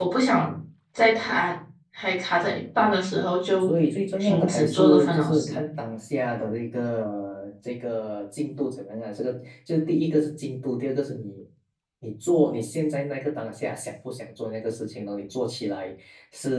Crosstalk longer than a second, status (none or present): present